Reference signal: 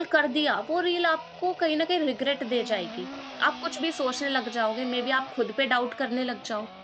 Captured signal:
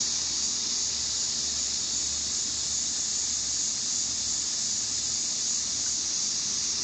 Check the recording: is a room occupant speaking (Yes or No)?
No